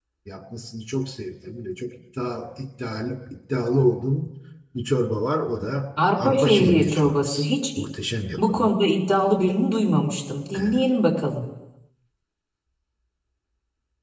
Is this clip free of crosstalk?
No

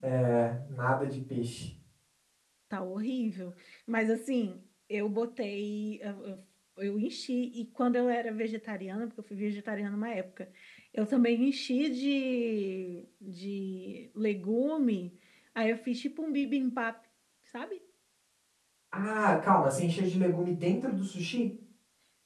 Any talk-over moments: No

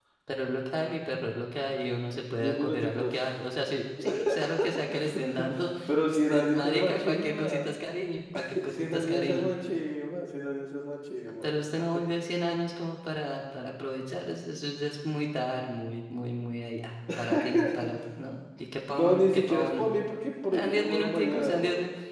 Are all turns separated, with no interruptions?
No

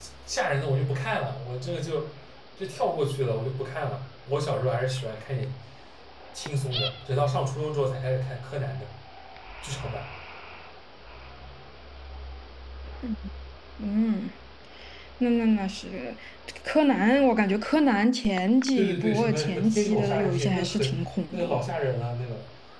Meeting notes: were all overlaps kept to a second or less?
No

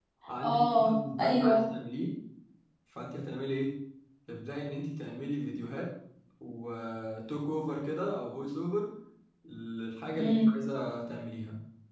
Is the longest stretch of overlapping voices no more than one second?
No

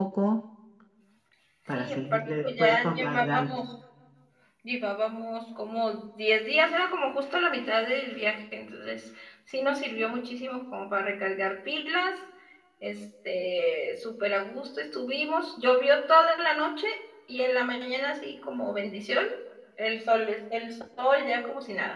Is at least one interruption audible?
Yes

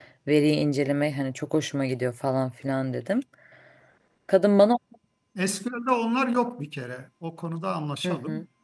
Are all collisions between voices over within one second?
Yes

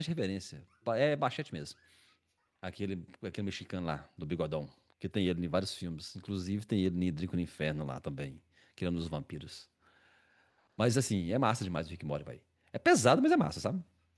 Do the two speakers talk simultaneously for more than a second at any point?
No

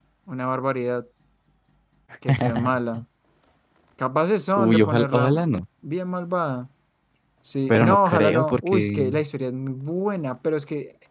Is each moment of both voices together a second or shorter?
No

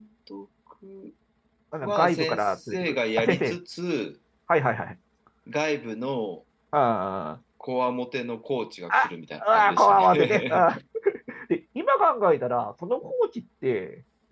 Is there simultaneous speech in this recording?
Yes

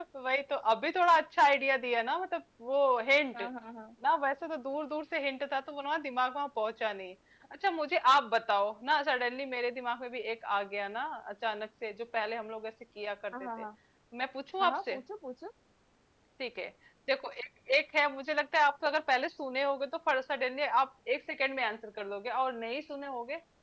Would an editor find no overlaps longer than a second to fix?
Yes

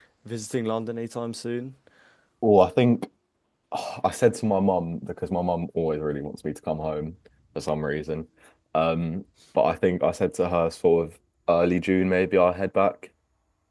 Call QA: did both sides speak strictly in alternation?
Yes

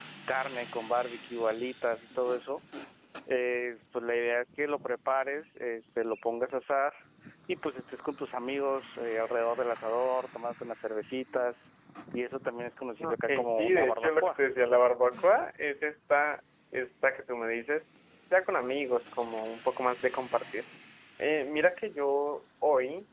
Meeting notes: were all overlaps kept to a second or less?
No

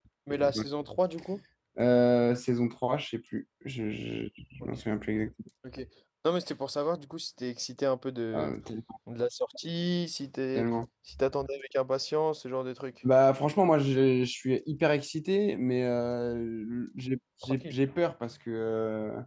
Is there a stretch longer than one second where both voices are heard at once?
No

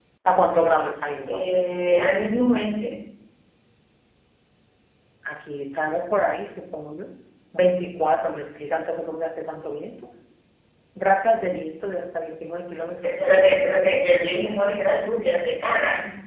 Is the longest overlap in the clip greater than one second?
No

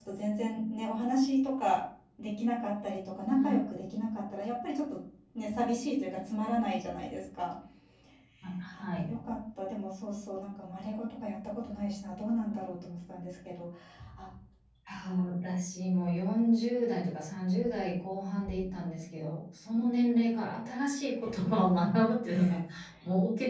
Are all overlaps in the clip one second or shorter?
Yes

